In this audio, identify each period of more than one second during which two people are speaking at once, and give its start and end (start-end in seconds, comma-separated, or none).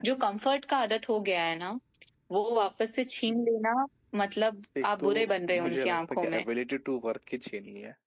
4.8-6.4